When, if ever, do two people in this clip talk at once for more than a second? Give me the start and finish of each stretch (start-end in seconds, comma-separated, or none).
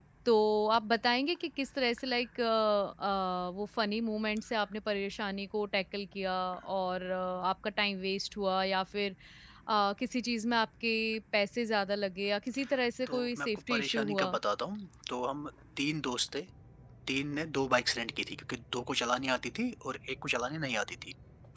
13.1-14.4